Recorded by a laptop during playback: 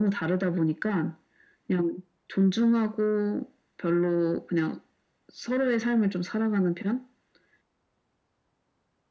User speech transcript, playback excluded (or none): none